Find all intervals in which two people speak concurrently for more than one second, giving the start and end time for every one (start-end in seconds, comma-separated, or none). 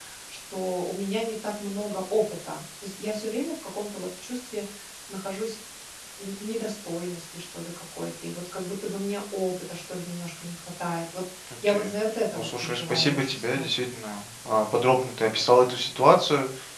12.3-13.7